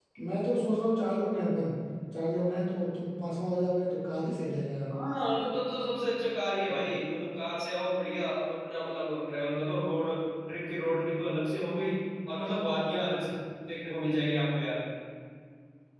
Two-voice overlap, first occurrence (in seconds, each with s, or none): none